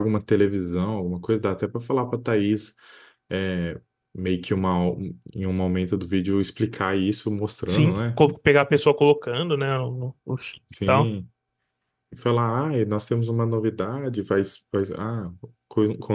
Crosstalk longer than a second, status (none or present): none